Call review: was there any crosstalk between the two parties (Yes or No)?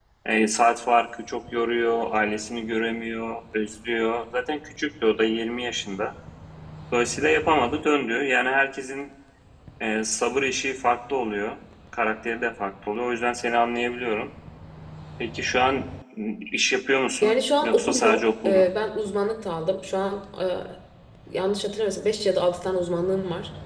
Yes